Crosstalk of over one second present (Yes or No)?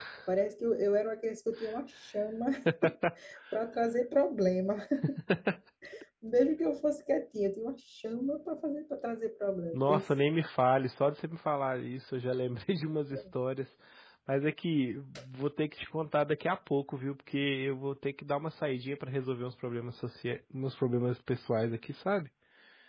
No